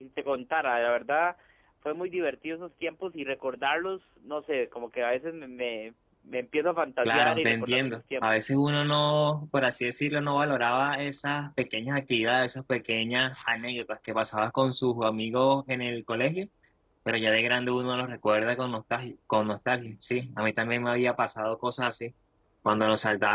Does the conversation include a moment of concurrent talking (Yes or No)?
Yes